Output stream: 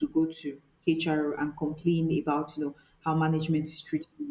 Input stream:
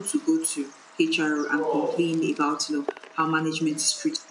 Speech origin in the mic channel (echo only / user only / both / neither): both